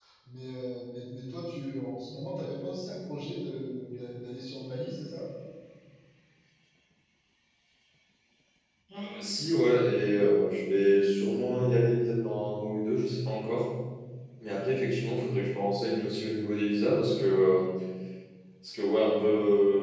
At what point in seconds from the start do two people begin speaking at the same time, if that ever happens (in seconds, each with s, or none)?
none